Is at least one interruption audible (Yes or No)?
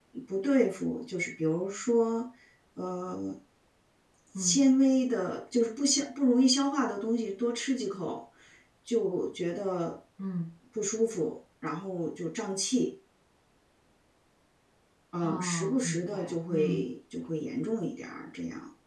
Yes